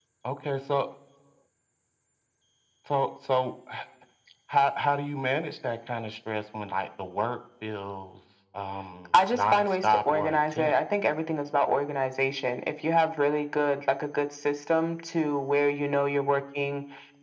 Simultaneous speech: Yes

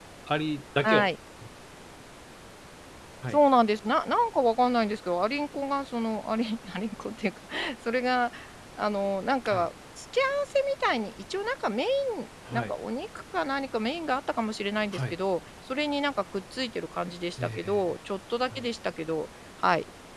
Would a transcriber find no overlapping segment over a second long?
Yes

